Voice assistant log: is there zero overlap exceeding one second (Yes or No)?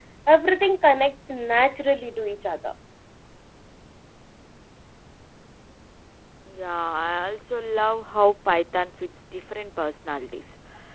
Yes